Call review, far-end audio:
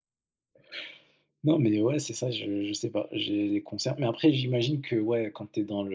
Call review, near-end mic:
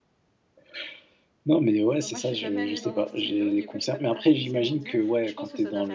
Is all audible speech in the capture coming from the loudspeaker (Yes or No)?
No